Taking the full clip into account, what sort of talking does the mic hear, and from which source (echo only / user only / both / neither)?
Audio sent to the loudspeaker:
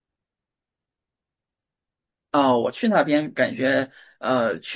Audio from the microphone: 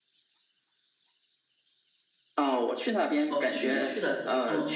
both